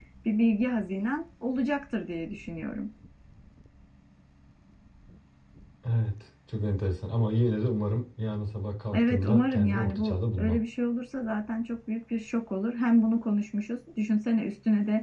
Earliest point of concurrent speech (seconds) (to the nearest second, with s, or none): 9 s